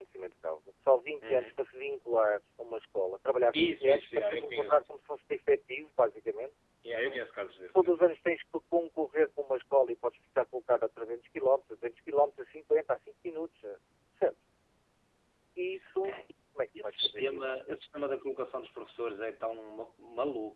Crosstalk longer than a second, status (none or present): present